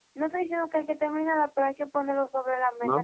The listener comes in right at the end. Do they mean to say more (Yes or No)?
Yes